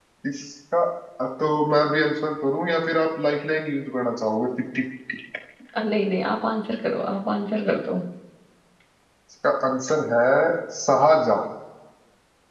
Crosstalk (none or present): none